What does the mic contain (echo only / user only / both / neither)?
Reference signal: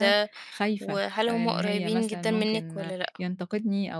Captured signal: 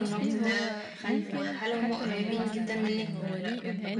both